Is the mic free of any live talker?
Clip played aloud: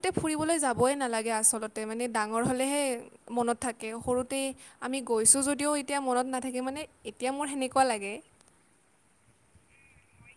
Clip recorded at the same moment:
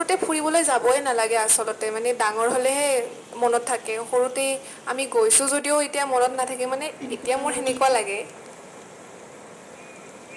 No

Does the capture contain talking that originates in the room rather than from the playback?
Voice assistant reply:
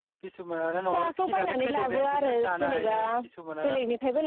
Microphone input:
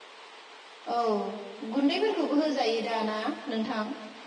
Yes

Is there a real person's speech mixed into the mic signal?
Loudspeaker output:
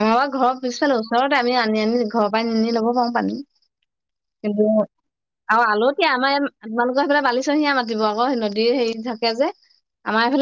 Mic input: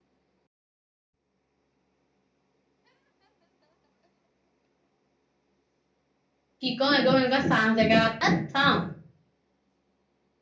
Yes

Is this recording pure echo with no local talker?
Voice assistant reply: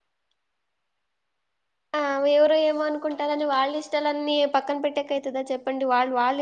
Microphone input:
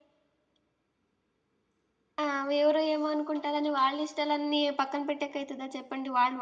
Yes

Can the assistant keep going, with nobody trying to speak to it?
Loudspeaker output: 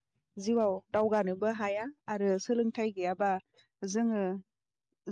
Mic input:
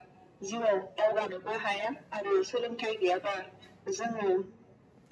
Yes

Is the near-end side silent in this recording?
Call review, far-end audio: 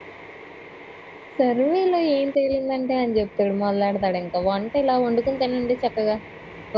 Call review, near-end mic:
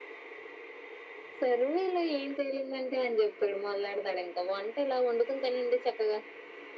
Yes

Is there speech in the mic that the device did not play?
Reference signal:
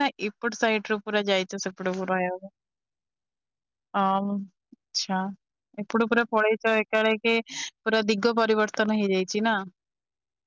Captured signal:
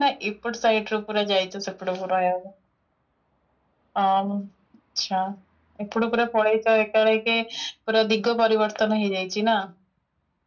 No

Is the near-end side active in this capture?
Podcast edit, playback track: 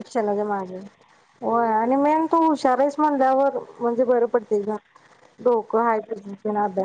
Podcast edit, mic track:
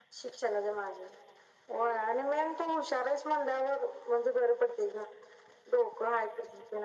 No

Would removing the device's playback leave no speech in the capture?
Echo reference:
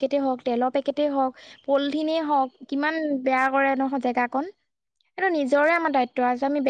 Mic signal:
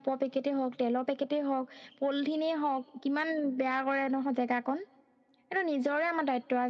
Yes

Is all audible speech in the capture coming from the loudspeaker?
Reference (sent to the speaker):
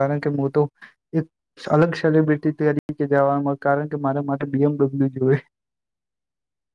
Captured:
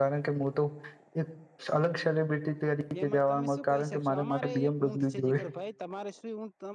No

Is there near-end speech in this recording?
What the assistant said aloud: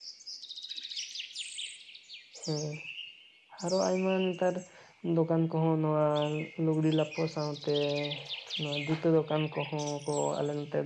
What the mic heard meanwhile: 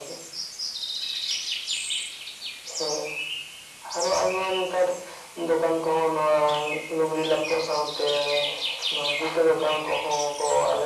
No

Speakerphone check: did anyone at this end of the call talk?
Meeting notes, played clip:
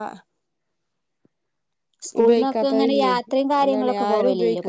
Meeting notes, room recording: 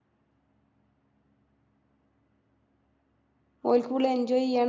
Yes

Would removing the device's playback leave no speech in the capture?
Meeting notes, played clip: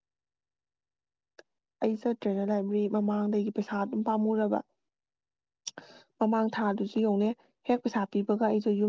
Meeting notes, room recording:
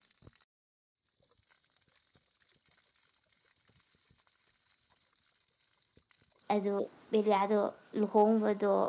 No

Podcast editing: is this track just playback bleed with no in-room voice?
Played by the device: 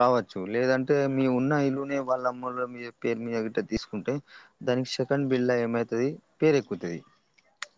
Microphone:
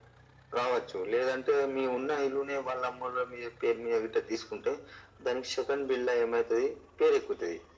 Yes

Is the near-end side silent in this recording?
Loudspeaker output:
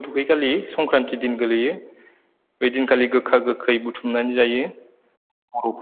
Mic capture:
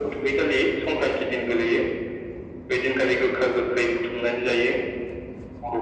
Yes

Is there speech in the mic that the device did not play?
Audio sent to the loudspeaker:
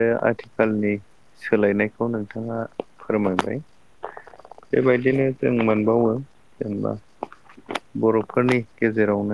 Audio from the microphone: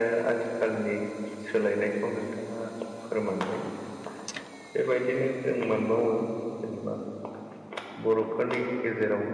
No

